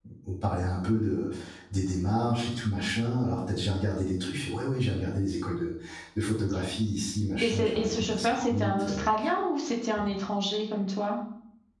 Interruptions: present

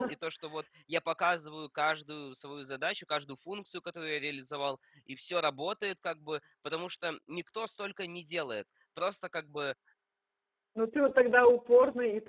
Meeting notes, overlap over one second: none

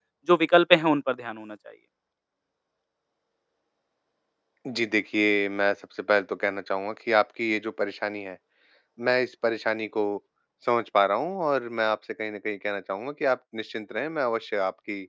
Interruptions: none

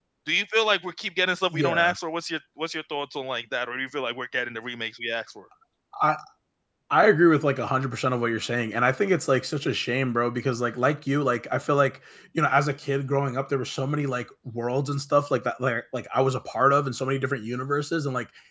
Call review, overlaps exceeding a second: none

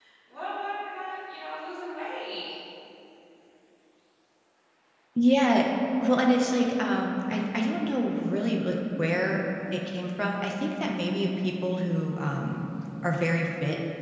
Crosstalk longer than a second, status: none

